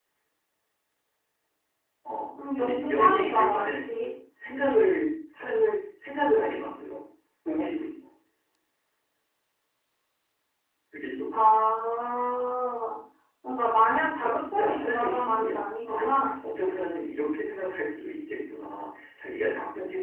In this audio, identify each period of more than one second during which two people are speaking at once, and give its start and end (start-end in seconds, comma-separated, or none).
2.6-3.9, 14.2-16.0